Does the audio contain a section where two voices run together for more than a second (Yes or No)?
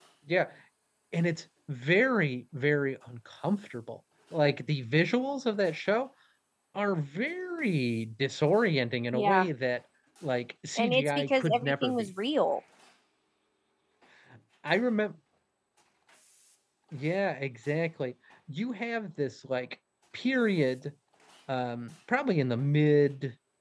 Yes